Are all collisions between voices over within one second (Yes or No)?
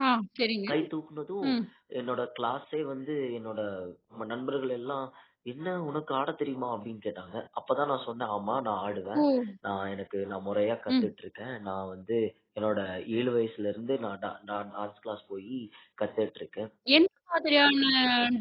Yes